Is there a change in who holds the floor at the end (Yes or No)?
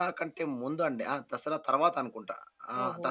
No